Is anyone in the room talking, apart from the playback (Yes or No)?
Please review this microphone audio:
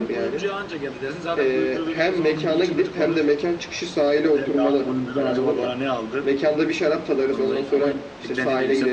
No